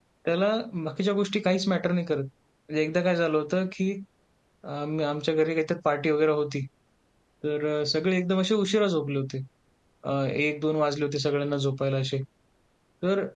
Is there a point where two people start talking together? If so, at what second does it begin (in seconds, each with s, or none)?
none